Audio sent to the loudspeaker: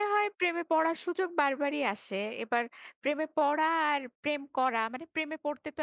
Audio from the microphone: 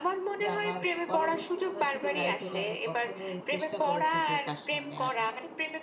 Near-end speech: present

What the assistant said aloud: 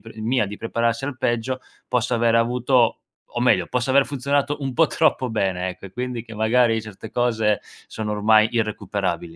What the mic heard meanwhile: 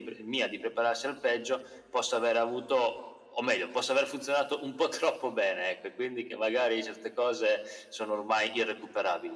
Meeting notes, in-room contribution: none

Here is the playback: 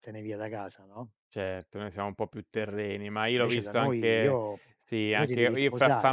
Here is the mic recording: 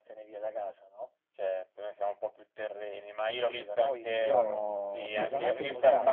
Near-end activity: present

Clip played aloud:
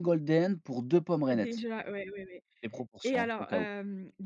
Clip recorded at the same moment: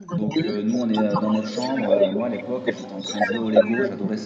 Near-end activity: present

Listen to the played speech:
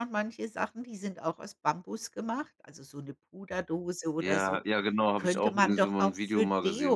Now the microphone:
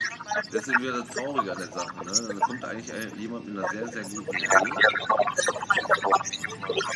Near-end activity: present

